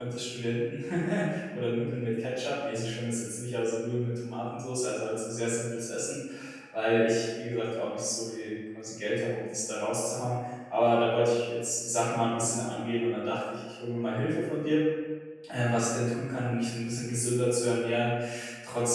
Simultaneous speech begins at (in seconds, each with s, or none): none